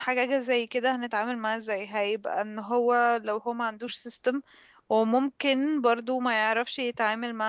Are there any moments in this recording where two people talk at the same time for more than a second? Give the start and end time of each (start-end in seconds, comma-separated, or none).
none